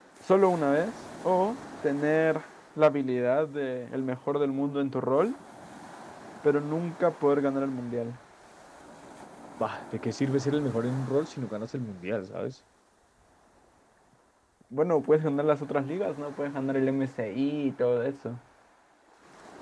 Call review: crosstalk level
none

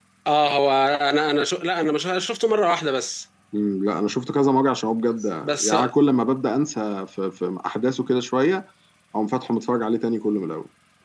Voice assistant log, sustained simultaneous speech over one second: none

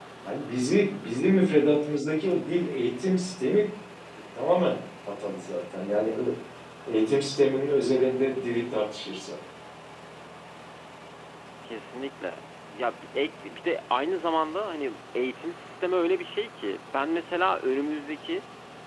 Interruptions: none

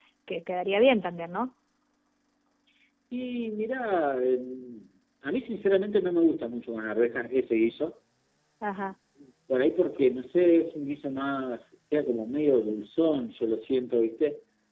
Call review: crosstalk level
none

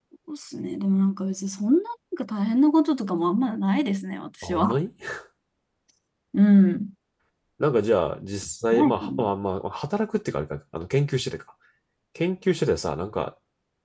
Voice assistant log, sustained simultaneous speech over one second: none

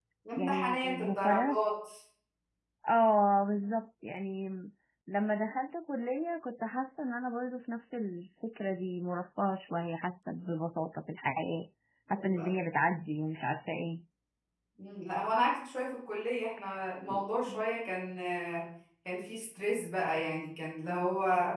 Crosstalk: present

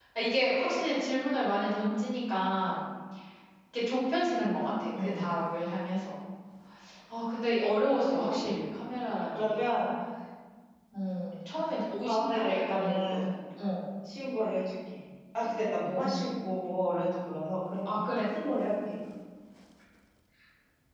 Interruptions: present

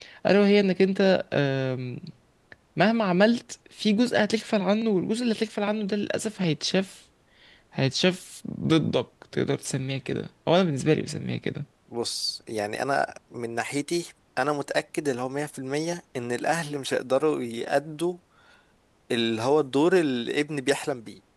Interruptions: none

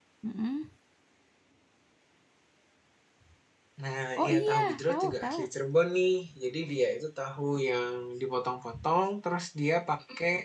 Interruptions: present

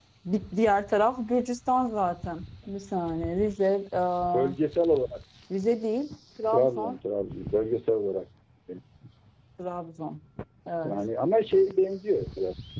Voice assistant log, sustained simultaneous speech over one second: none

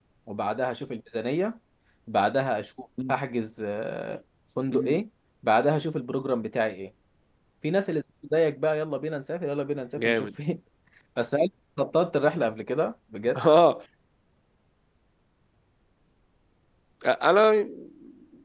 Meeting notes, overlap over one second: none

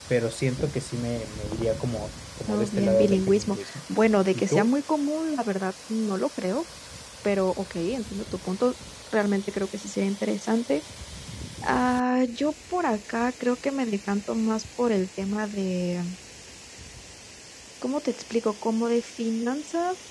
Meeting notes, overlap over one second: present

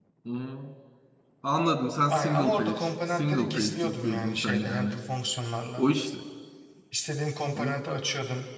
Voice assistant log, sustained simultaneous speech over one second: present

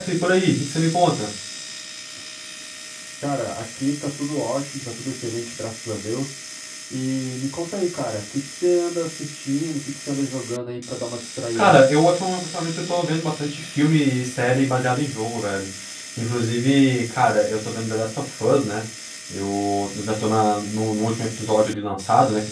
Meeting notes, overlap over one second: none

